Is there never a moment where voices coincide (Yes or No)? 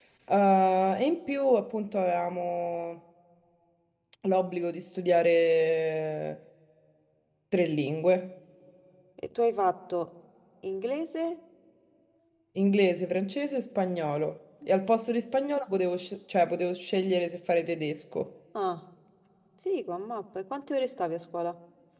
Yes